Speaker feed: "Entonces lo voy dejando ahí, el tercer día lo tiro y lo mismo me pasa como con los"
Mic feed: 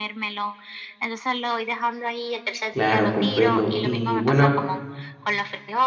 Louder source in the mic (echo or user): user